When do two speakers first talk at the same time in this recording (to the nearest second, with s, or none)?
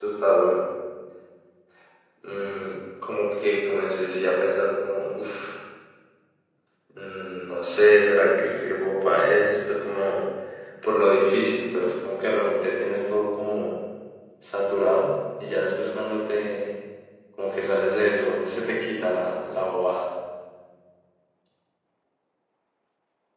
none